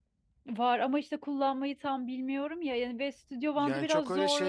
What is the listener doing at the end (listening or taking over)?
taking over